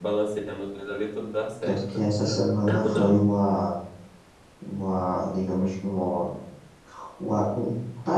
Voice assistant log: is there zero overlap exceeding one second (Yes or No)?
Yes